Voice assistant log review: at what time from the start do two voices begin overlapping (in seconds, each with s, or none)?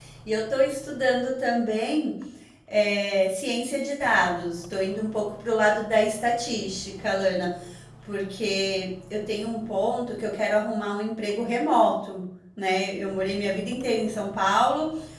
none